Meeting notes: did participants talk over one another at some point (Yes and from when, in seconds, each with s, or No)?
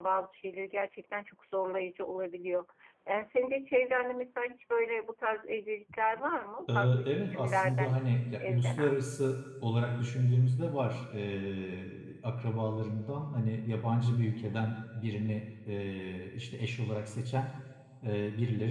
Yes, from 6.8 s